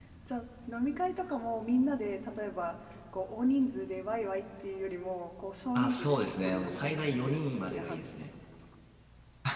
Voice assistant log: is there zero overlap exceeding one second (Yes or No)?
No